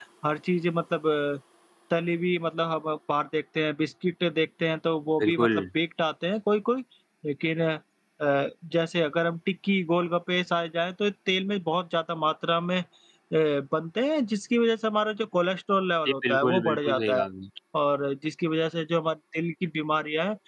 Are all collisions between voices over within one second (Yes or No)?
No